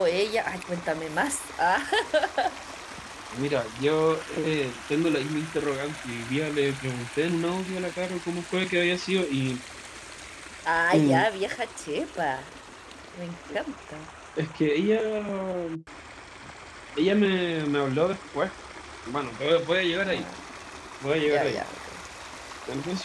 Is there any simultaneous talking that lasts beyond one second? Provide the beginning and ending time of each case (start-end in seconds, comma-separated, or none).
none